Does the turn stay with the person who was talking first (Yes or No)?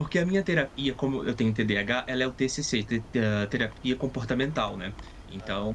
Yes